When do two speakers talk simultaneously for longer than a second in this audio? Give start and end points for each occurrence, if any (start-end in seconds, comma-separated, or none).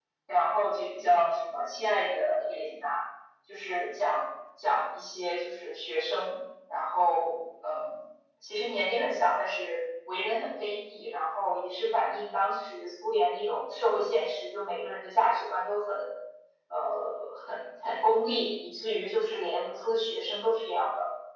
none